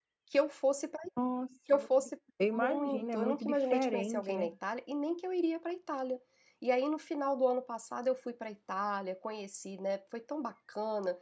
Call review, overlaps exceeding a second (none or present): present